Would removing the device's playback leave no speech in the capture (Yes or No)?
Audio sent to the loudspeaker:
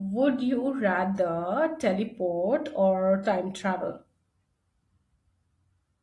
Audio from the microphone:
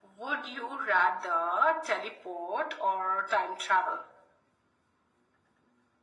Yes